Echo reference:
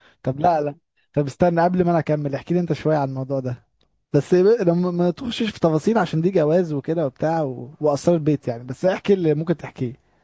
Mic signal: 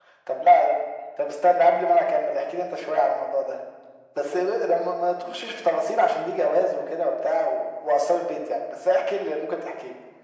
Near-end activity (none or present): none